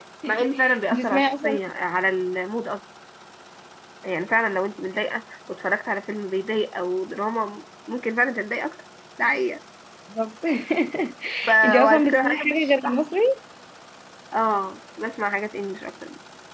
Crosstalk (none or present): present